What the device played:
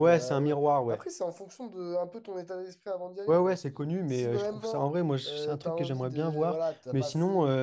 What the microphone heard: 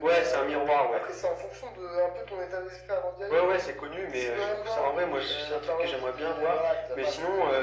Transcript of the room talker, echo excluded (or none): none